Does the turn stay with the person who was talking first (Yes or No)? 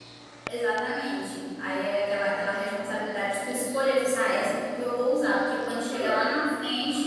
Yes